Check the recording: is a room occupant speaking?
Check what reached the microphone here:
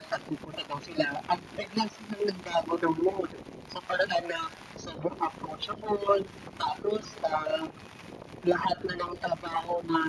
No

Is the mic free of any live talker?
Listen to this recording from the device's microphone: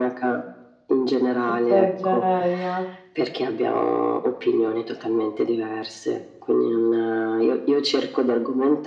No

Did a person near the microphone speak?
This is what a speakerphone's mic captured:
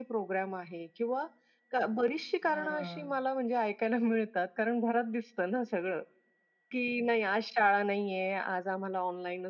Yes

